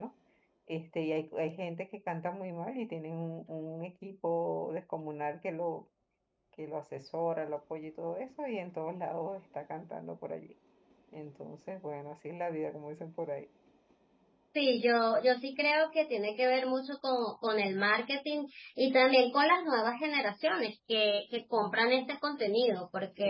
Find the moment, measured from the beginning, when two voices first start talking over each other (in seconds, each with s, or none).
none